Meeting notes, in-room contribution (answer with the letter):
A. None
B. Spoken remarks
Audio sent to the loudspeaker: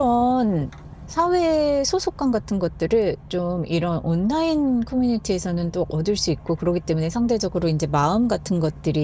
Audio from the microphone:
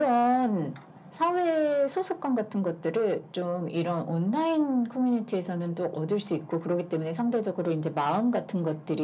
A